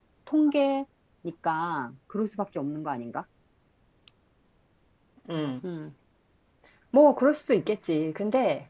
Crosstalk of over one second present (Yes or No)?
No